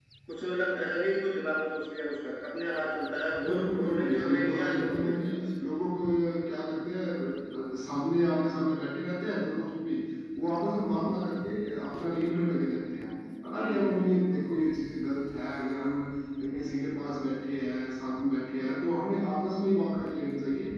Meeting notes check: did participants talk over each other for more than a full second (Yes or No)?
Yes